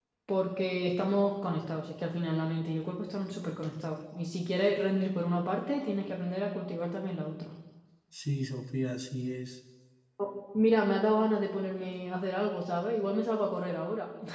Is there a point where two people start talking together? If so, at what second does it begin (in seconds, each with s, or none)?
none